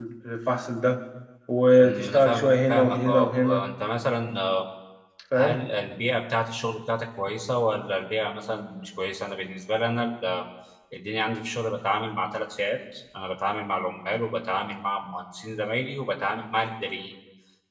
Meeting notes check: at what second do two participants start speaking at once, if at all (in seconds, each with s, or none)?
1.8 s